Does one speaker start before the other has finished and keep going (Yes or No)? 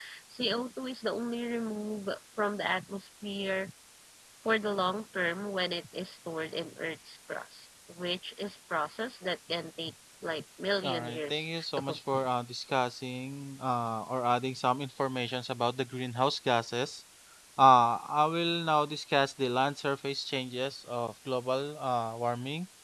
Yes